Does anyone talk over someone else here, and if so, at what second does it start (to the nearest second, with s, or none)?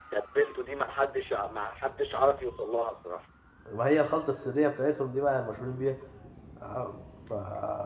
none